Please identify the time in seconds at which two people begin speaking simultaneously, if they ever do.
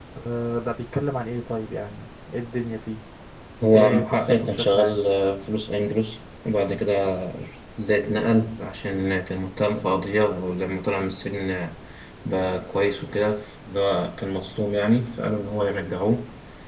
3.8 s

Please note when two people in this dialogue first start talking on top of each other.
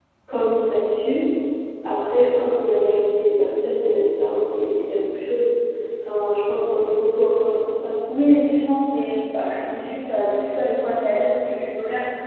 none

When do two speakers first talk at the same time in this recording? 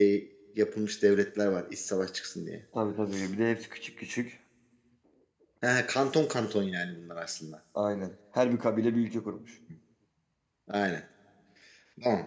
none

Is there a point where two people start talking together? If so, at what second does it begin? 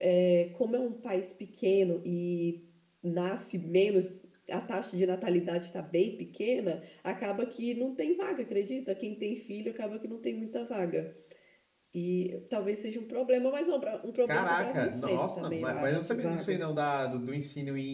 14.3 s

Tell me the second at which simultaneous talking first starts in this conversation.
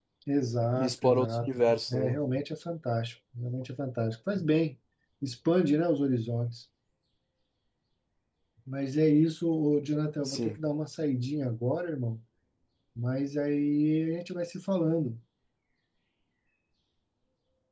0.8 s

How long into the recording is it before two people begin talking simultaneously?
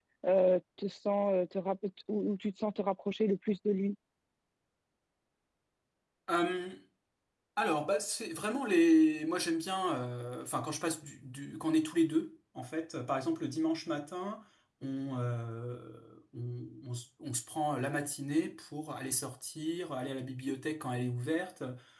none

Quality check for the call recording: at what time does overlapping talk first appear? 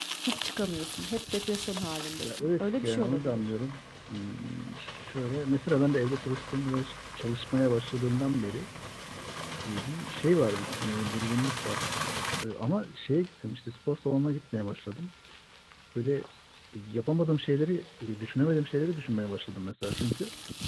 2.2 s

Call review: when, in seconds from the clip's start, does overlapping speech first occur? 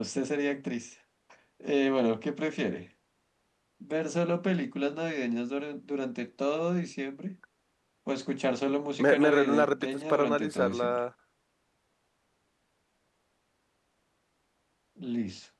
9.0 s

